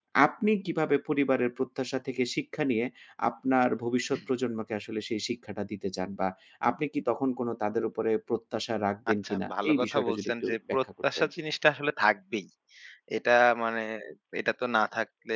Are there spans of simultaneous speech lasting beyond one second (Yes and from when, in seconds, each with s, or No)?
Yes, from 9.2 s